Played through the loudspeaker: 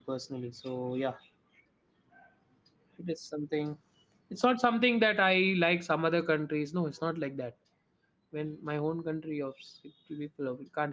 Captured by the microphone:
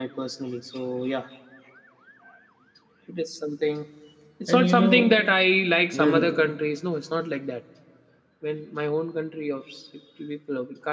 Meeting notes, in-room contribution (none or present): present